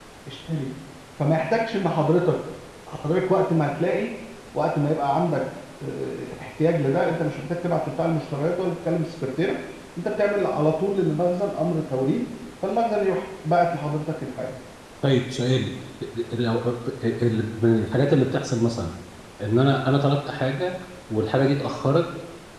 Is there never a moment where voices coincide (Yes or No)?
Yes